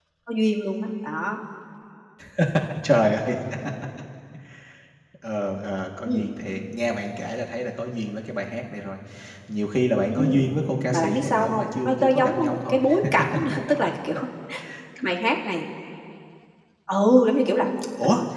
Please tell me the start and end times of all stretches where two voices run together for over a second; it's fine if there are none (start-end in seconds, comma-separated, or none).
10.9-12.8